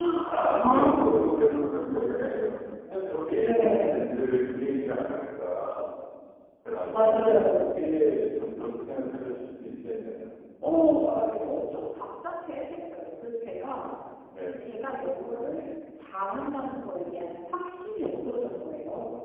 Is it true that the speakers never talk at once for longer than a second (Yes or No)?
No